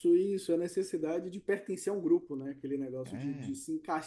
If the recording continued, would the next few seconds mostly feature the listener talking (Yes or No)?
No